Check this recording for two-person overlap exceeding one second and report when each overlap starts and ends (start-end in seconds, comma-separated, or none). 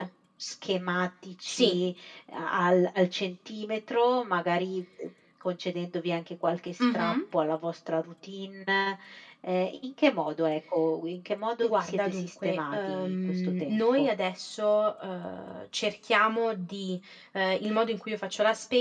11.6-14.1